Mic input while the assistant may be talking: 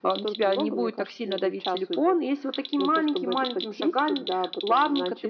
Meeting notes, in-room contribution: none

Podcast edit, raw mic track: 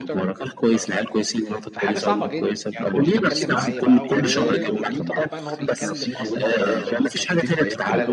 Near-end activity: present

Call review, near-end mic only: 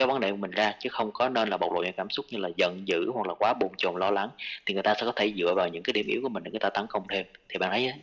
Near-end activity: none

